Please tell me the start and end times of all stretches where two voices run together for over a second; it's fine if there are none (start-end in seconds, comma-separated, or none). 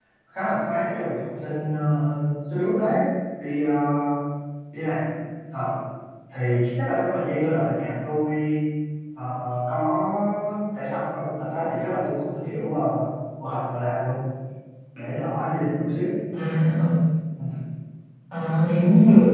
none